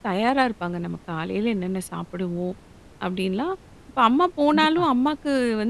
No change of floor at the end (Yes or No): Yes